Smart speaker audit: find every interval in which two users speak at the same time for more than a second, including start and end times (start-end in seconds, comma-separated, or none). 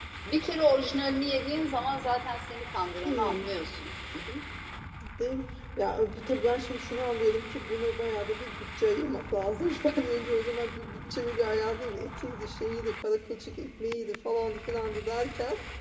none